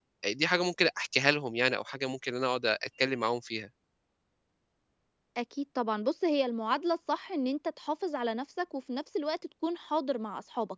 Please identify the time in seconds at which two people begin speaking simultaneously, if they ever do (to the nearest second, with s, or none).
none